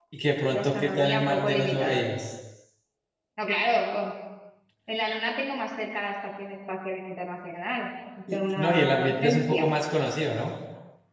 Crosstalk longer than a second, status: present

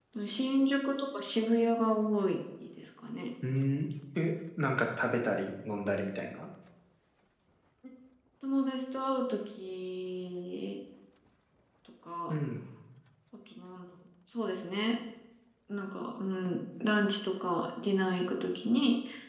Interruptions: none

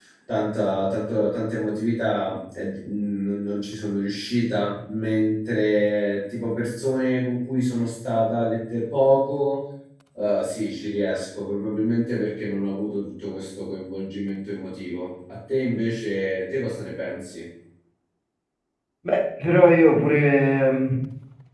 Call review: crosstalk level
none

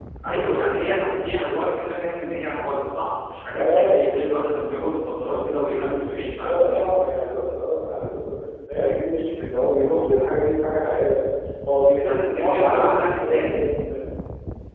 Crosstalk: present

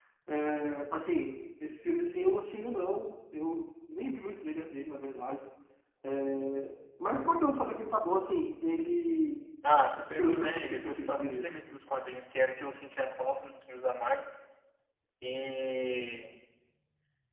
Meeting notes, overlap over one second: present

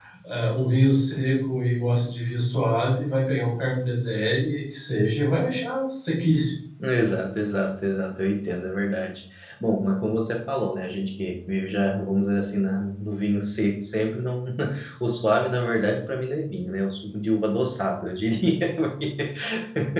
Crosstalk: none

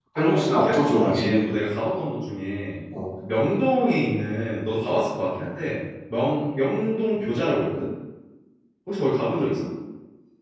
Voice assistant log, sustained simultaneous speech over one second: present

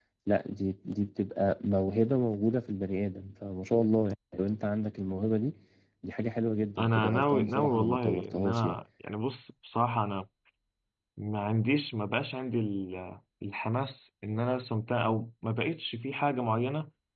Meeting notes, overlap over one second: present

